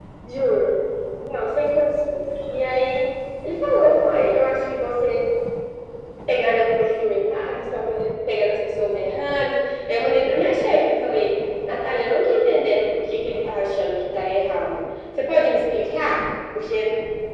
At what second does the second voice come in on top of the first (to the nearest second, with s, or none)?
none